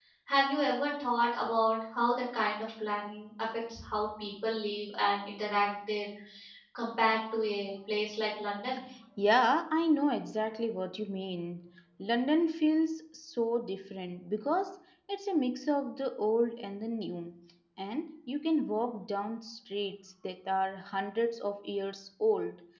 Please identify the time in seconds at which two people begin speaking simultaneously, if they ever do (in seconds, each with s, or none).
none